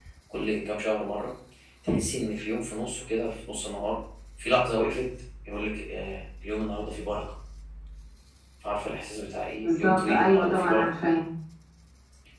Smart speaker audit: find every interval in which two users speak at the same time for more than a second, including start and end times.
9.6-10.9

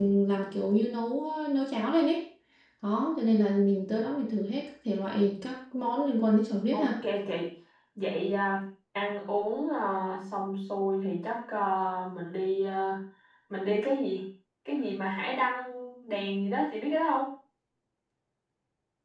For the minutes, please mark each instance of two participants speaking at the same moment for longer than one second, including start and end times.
none

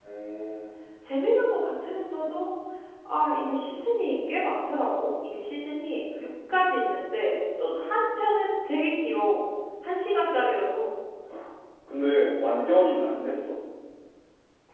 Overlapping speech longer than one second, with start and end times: none

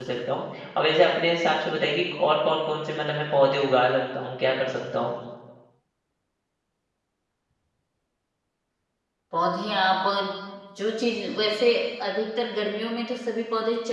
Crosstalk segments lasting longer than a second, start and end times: none

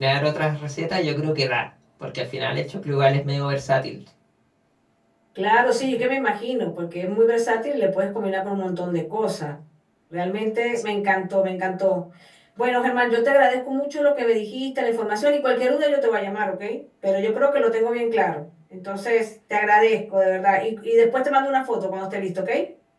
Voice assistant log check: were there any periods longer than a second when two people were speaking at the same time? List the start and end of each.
none

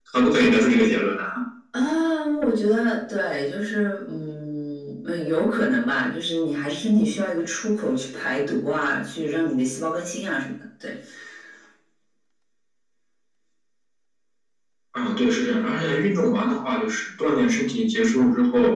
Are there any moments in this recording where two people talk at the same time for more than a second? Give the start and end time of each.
none

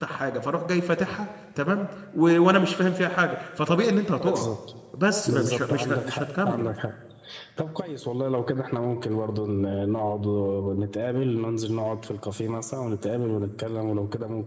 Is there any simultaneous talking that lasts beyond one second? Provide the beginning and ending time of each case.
5.3-6.7

